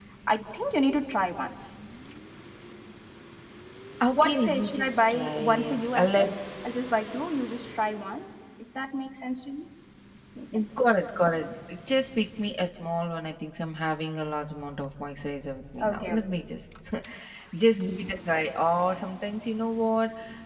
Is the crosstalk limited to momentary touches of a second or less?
No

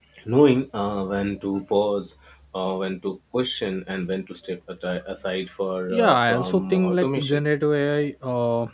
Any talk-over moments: Yes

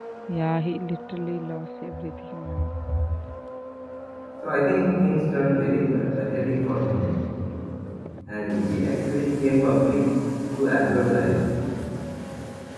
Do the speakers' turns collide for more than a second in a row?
No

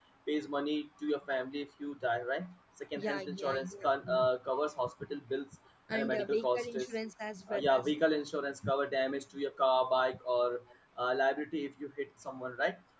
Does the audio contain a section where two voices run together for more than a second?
Yes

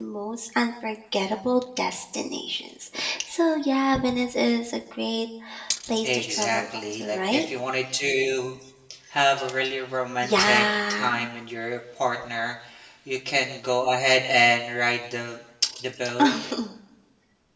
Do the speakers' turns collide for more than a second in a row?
Yes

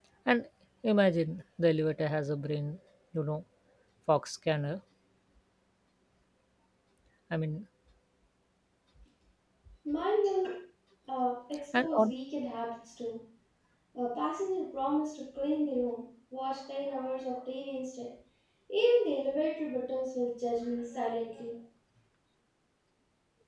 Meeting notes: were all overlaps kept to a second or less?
Yes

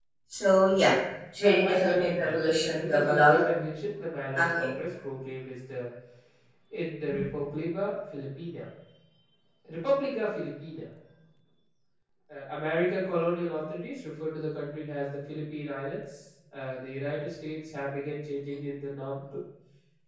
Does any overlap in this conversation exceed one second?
Yes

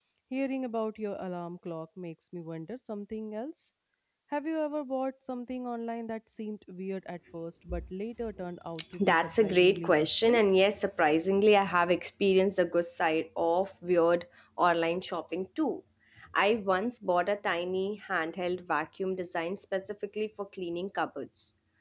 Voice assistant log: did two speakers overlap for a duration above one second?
Yes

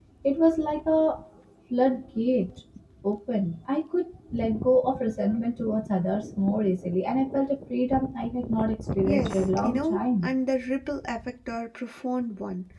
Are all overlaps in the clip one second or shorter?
No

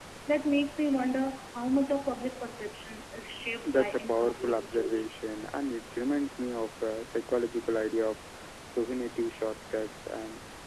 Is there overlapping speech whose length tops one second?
Yes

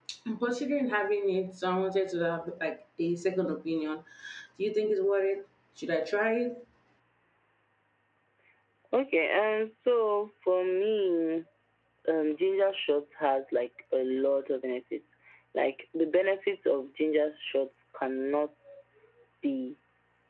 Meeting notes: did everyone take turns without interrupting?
Yes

